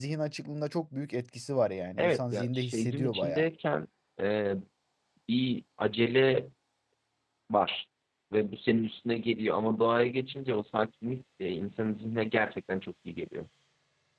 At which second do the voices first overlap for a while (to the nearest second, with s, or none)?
2 s